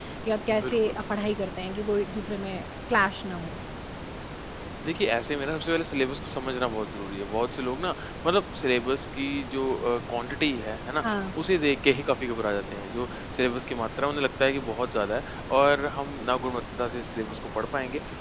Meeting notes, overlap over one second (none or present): none